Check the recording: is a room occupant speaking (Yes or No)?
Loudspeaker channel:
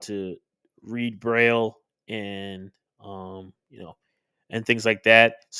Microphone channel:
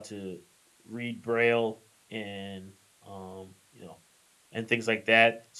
No